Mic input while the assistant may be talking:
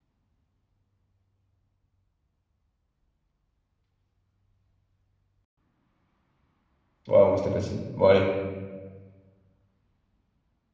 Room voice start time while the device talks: 7 s

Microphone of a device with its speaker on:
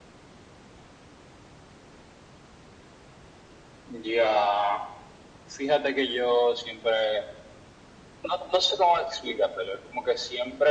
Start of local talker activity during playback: none

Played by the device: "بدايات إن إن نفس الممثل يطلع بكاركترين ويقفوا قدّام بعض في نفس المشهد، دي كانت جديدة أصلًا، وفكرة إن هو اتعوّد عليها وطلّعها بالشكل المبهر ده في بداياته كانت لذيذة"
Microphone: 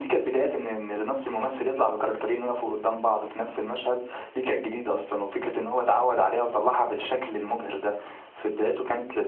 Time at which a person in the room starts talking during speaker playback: none

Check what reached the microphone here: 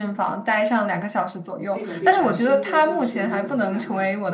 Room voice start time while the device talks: 2 s

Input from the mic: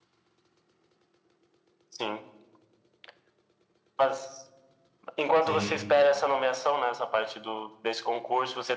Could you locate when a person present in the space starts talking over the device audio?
5 s

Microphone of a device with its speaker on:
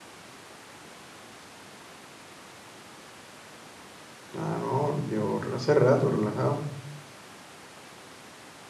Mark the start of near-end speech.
4 s

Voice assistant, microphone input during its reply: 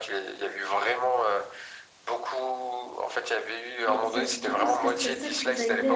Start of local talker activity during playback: 4 s

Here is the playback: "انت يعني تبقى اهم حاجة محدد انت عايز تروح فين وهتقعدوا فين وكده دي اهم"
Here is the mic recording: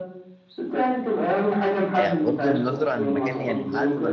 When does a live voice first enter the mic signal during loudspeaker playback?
2 s

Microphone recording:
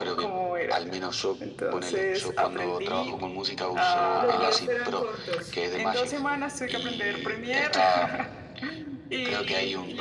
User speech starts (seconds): 4 s

